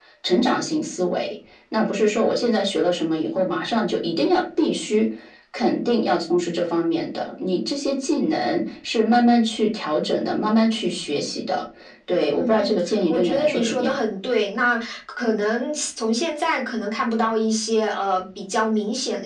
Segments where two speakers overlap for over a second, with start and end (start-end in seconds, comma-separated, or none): 12.3-13.9